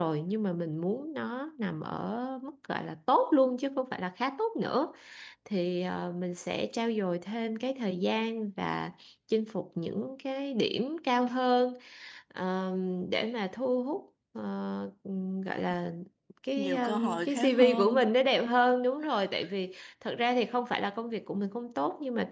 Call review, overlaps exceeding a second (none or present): present